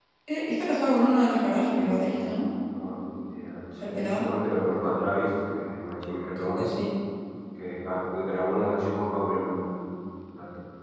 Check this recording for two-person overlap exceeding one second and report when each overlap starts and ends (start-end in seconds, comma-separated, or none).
none